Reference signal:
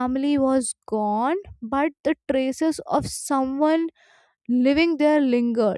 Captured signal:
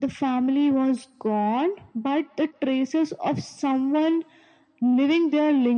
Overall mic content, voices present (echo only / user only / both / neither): echo only